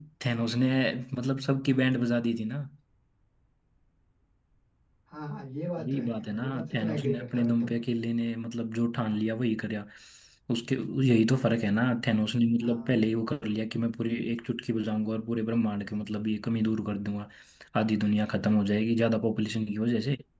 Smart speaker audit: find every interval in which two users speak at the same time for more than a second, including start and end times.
5.8-7.7

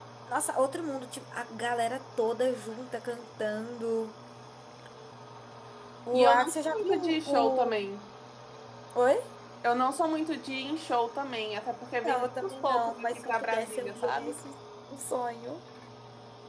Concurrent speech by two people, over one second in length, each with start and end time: 6.1-7.8, 12.0-14.4

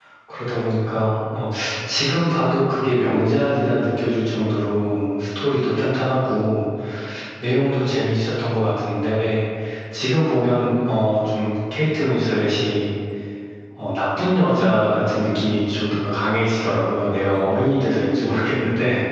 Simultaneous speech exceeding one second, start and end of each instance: none

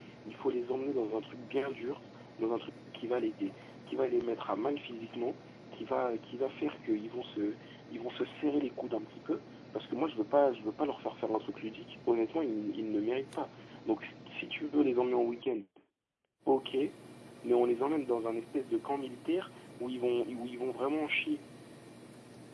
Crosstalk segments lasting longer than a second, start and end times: none

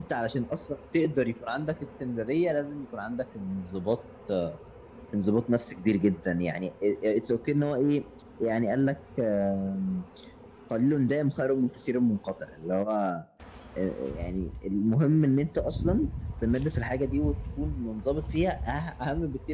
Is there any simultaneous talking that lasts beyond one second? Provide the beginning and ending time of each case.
none

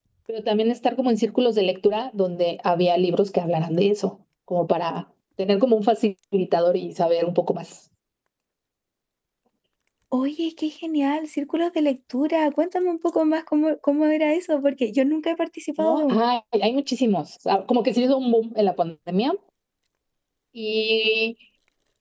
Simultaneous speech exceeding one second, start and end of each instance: none

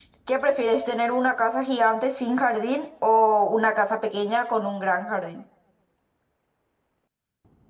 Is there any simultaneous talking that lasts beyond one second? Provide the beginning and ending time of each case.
none

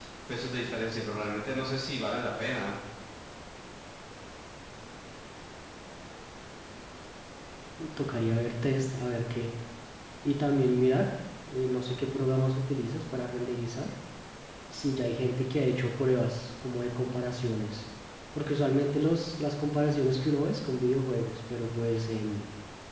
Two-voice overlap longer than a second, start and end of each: none

